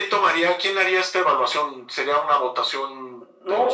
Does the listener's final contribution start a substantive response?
No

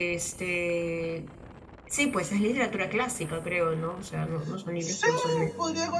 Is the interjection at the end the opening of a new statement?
Yes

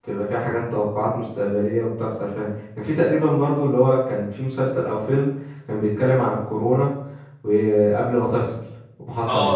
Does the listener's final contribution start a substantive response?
Yes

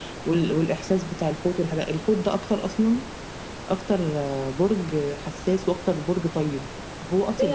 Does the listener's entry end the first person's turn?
Yes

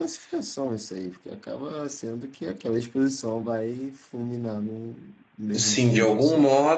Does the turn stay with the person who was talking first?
No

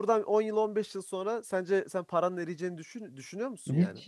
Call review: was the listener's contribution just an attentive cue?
No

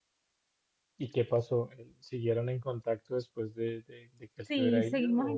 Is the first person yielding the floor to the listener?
Yes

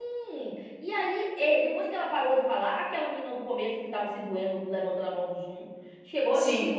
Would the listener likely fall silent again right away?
Yes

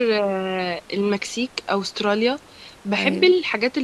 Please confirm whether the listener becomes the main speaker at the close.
No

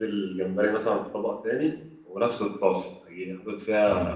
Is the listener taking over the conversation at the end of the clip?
No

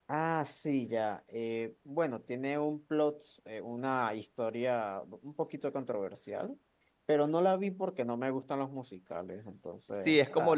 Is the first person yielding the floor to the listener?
Yes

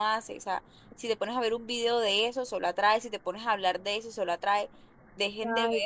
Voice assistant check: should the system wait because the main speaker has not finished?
Yes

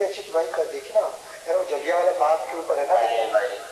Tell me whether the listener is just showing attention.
No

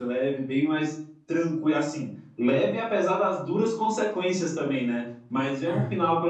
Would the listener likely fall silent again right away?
Yes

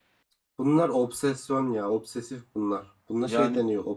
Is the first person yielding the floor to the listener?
No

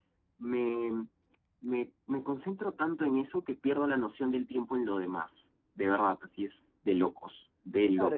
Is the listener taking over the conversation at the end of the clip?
Yes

